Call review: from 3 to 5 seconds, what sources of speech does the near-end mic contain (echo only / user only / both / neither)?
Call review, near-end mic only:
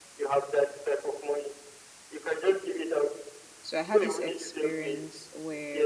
both